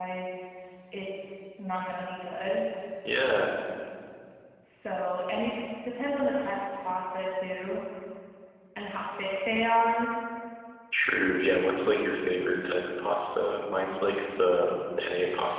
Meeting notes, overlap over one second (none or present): none